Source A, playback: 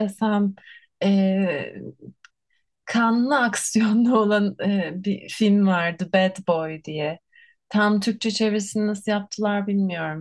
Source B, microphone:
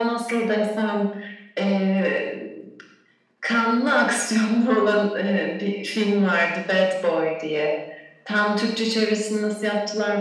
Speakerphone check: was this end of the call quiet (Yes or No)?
Yes